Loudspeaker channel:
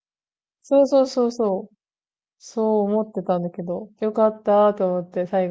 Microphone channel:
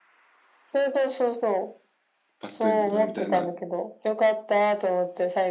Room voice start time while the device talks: 2.4 s

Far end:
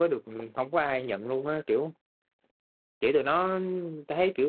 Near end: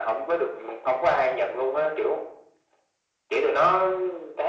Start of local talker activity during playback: none

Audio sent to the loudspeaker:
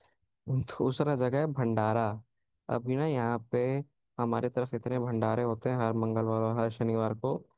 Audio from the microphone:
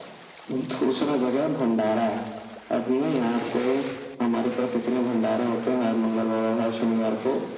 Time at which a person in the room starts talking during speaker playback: none

